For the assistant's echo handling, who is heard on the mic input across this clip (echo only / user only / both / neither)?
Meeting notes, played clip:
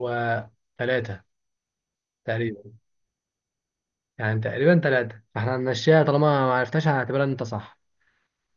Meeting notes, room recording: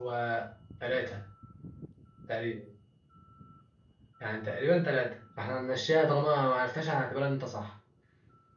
echo only